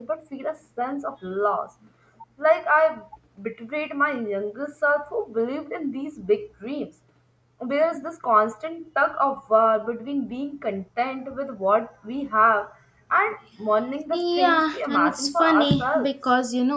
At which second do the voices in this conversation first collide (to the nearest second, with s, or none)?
14 s